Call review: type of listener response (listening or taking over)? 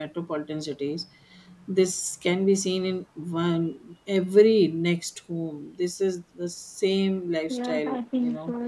taking over